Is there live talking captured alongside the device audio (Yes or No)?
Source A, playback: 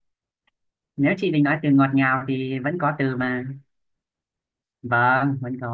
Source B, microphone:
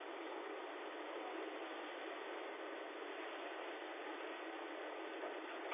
No